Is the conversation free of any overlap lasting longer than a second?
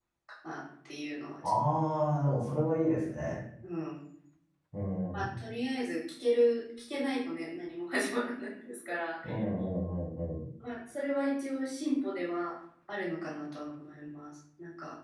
Yes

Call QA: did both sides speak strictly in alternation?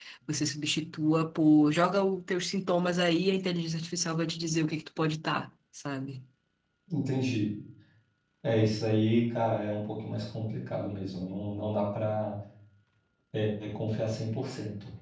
Yes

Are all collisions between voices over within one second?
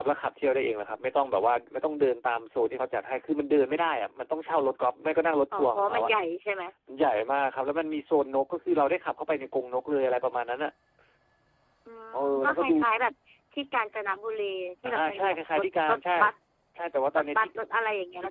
No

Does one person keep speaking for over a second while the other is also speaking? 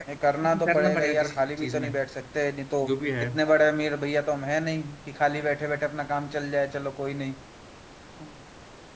Yes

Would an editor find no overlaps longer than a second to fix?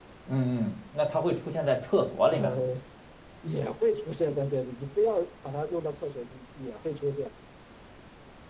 Yes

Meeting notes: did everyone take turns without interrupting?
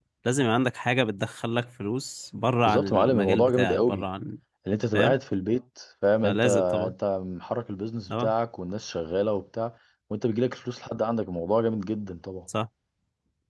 No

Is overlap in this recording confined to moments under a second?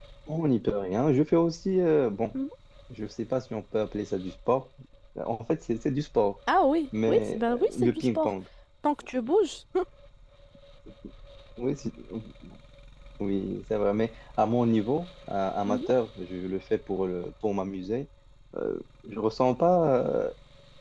No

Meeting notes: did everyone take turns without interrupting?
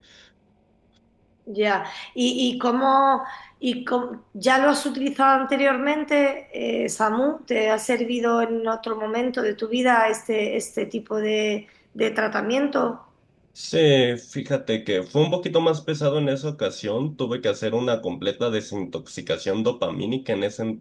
Yes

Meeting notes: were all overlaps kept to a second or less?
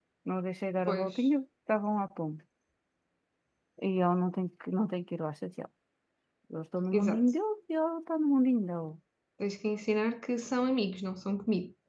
Yes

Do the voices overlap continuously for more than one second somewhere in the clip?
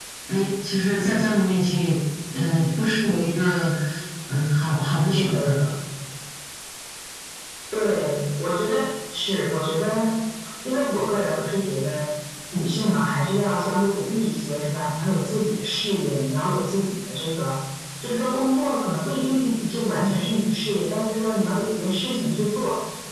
No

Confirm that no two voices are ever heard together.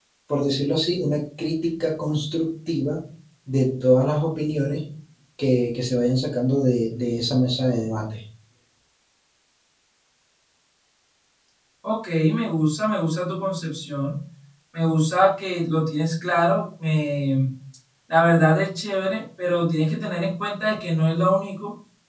Yes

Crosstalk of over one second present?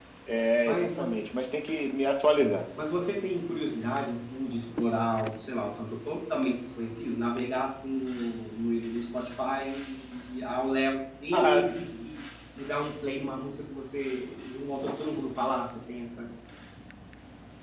No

